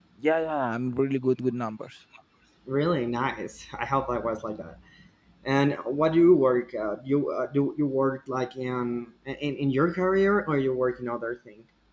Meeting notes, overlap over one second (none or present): none